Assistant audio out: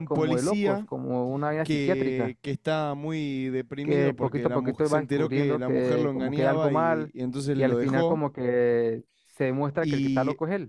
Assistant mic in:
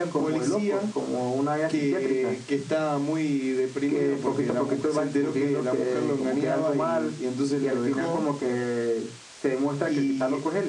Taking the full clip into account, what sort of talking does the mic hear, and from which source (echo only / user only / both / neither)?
echo only